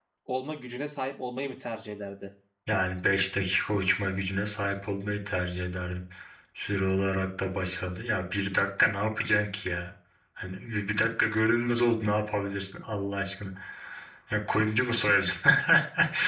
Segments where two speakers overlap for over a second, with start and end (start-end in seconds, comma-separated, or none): none